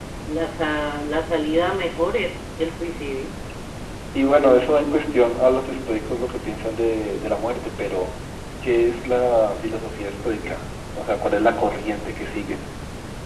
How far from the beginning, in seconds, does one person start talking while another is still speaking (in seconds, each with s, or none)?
none